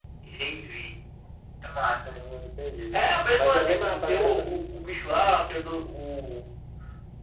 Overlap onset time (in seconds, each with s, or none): 2.9 s